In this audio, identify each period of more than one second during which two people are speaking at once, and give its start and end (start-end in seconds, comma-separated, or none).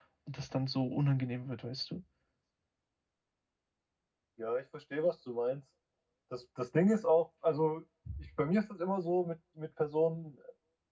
none